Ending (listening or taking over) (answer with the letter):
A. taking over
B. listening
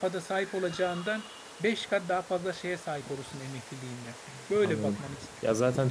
A